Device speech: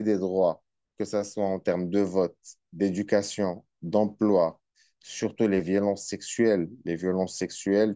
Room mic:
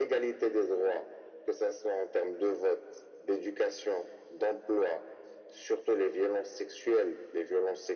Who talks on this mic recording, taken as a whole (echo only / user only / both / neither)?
echo only